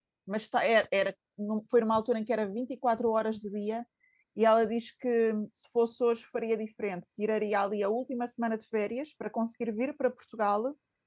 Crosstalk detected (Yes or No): No